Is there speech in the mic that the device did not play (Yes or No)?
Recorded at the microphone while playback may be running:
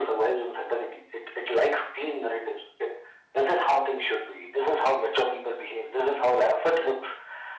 No